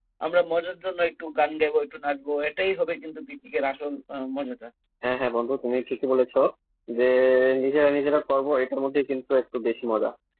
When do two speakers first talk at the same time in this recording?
none

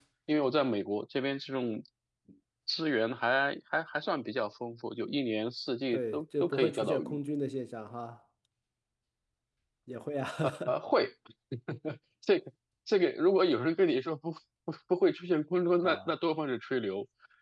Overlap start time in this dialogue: 6 s

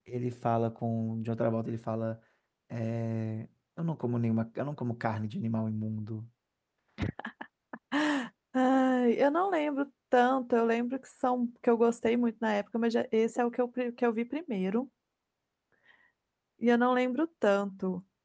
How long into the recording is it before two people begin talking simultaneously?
none

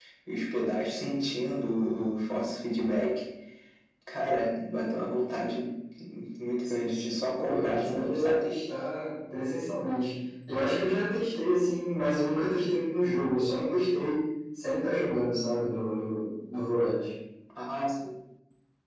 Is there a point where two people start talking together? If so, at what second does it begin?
7 s

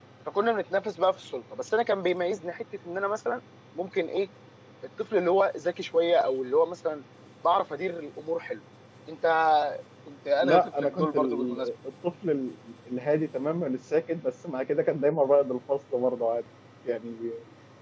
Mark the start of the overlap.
10 s

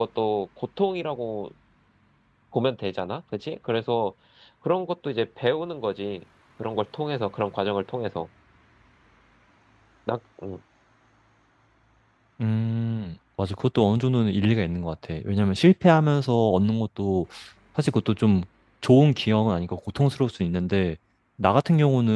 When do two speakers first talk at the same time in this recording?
none

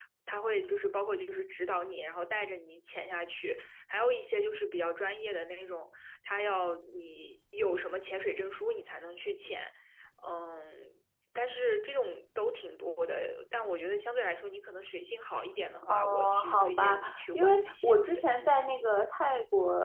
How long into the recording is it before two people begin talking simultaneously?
16 s

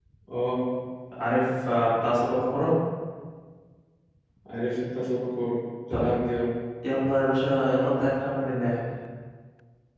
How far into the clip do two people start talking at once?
none

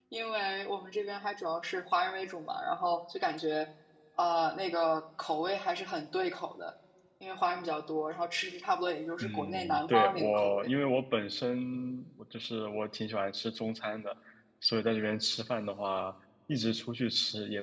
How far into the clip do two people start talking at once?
9 s

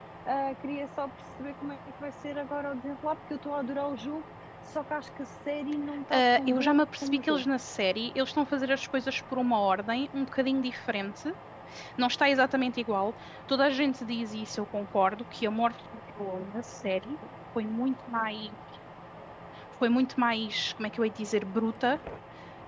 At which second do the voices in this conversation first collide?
6 s

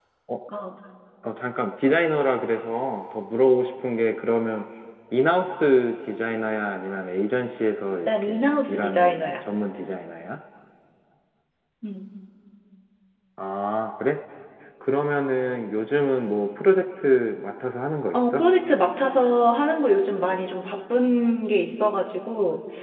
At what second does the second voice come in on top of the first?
8 s

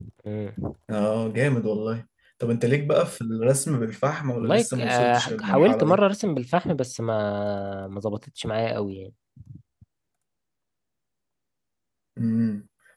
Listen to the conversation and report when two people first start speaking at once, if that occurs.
4 s

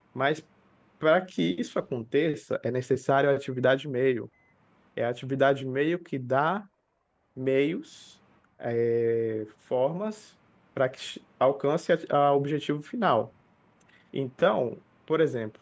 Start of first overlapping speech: none

